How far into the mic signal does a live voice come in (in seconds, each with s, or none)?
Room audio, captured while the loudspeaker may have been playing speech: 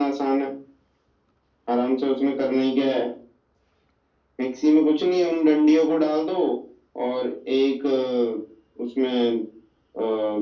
none